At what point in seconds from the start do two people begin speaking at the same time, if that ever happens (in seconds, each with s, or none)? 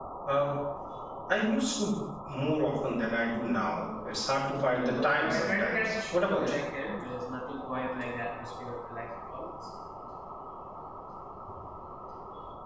4.7 s